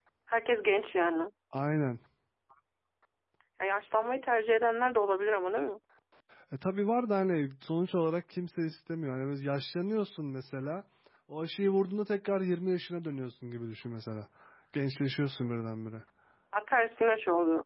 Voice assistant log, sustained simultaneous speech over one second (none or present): none